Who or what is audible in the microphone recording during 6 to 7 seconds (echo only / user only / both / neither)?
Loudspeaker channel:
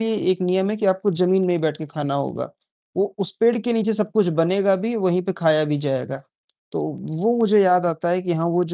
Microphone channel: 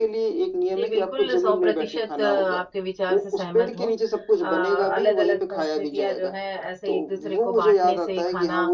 both